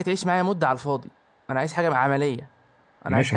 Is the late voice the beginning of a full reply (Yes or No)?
Yes